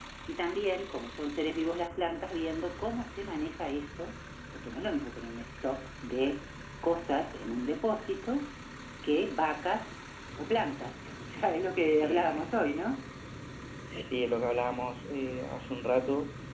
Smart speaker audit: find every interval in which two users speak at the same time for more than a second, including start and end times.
none

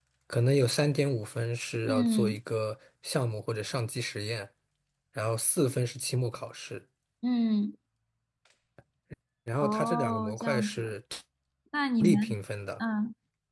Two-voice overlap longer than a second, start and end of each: 9.6-10.9

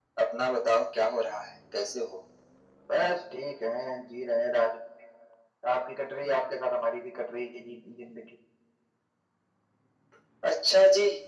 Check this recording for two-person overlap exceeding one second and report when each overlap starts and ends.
none

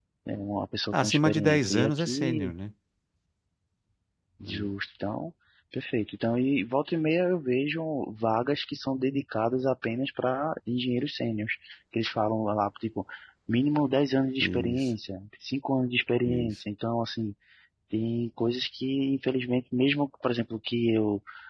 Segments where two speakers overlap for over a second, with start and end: 0.9-2.5

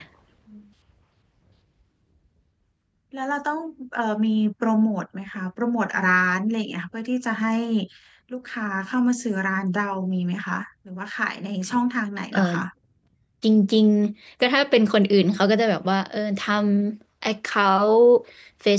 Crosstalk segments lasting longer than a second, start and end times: none

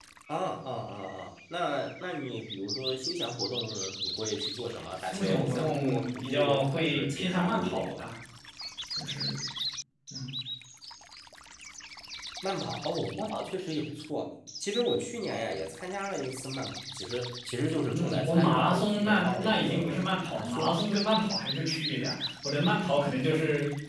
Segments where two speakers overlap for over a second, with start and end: 5.0-8.0, 17.9-20.8

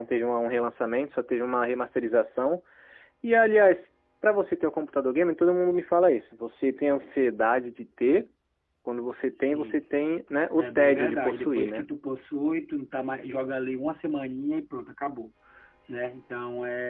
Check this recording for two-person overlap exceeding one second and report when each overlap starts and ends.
10.6-11.9

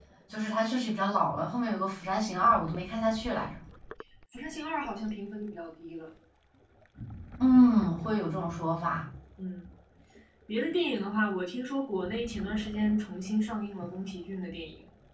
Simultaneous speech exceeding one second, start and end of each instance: none

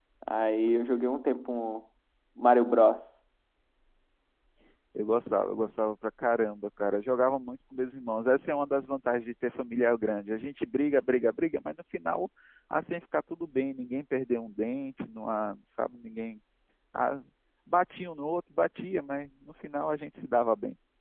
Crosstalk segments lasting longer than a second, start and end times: none

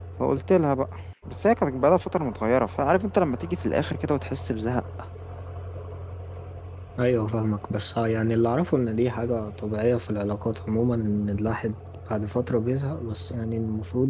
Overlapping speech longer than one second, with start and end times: none

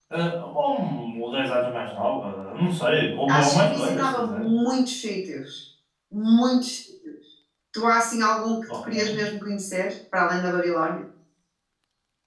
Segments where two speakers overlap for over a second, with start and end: 3.3-4.5

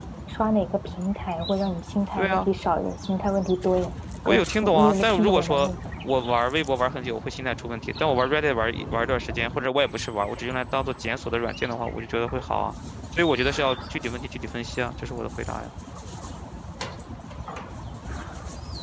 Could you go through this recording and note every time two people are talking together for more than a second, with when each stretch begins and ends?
4.2-5.7

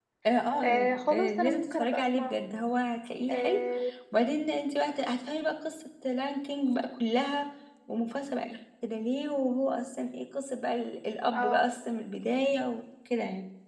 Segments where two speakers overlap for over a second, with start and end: 0.6-2.4

